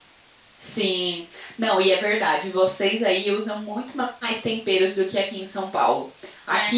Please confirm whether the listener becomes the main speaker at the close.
No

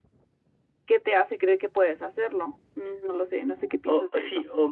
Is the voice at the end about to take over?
Yes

